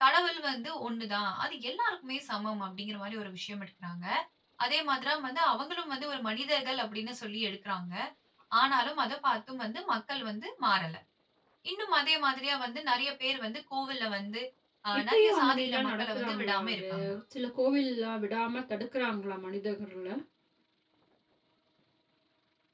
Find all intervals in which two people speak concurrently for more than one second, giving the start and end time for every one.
15.0-16.8

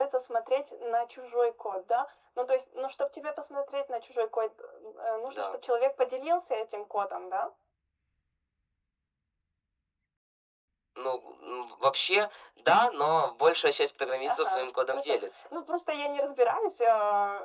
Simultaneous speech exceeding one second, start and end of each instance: 14.2-15.5

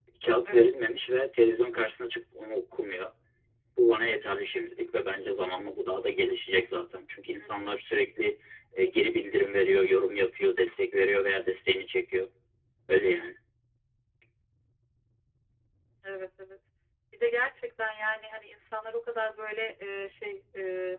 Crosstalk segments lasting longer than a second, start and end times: none

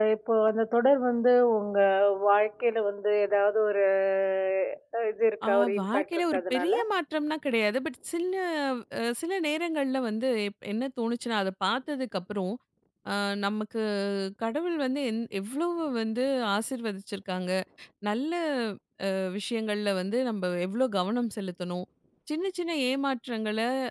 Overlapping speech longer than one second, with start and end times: 5.5-6.7

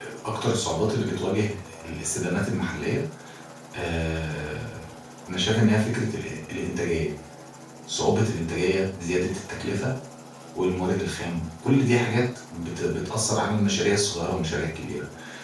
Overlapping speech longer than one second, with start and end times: none

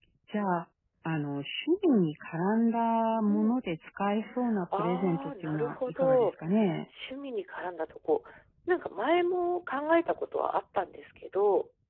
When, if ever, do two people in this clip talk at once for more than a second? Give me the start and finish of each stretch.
4.8-6.3

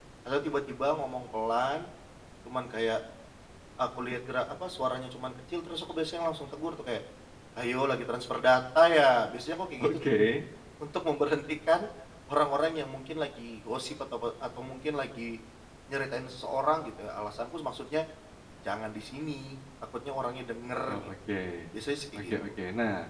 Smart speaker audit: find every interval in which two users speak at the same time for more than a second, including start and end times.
none

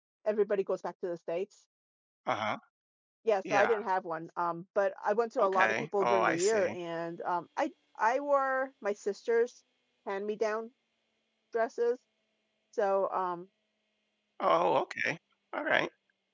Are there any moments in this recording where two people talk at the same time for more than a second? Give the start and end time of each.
5.4-6.8

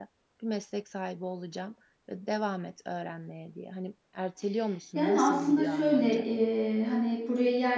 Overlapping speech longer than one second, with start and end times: 4.9-6.3

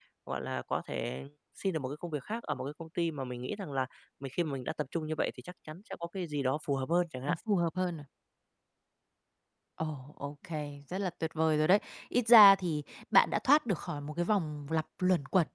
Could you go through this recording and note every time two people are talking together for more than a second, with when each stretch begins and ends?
none

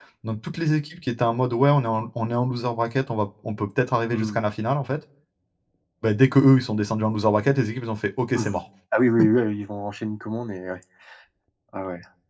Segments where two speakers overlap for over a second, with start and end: none

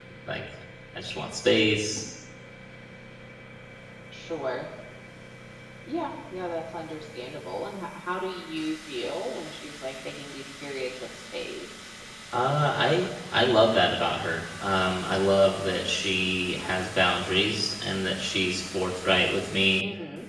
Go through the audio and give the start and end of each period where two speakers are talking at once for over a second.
none

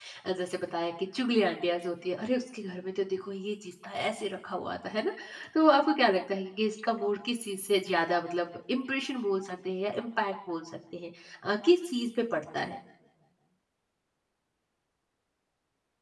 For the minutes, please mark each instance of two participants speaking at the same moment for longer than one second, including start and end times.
none

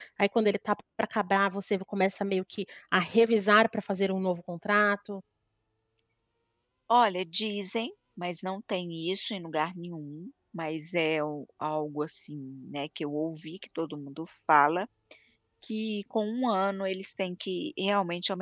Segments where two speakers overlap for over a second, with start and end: none

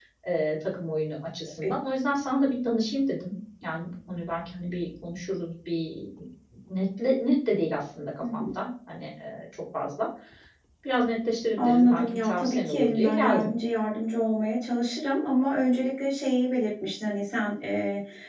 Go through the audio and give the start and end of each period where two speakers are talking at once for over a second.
11.6-13.5

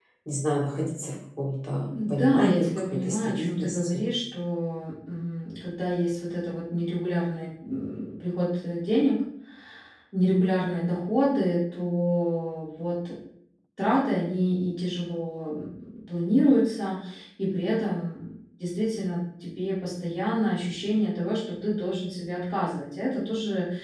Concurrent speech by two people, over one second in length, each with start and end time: 2.1-4.0

